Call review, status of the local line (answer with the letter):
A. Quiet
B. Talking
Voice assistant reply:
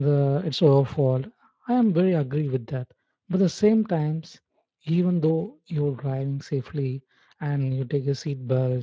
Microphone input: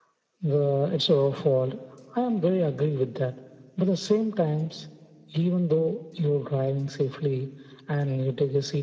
A